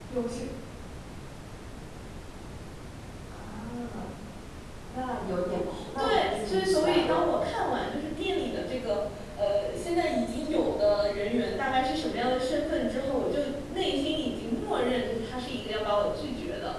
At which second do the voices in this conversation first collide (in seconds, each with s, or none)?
5.7 s